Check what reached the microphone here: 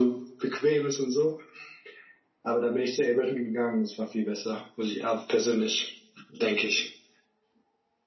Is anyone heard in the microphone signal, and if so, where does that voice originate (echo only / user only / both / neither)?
echo only